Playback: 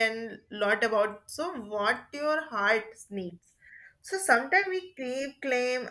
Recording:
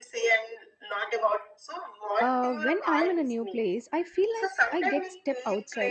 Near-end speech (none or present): present